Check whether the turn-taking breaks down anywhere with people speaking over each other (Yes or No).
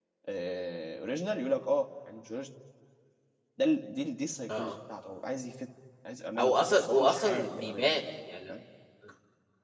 Yes